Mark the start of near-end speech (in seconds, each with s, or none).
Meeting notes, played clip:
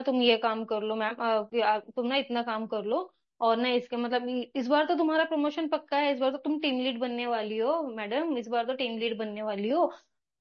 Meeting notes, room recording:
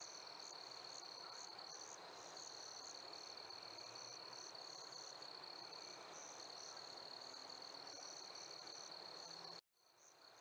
none